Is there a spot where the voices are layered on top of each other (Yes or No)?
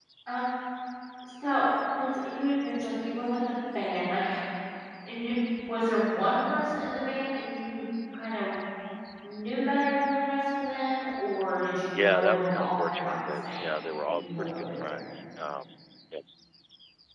Yes